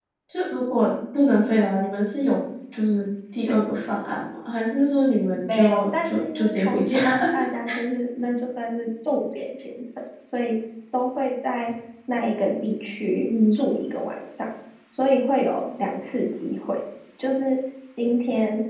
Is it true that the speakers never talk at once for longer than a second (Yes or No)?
No